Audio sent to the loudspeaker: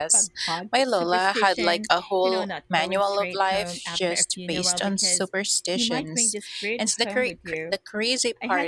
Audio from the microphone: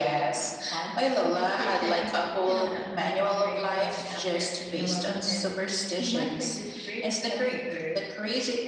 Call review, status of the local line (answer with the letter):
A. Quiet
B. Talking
A